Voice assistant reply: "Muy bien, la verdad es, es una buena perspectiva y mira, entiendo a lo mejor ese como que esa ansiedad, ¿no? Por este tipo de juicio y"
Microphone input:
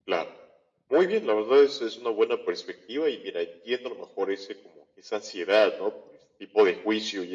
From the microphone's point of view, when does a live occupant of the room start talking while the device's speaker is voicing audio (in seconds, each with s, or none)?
none